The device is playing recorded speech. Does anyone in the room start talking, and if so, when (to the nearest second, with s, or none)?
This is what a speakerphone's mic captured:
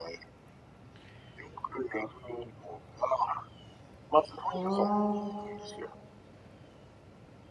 4 s